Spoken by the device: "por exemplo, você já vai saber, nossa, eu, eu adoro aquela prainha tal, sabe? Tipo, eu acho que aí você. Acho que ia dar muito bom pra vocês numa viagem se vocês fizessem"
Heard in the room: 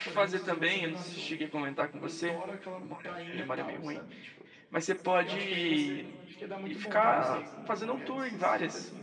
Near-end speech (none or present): present